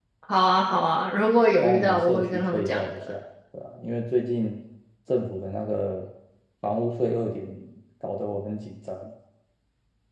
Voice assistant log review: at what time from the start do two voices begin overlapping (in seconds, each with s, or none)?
1.6 s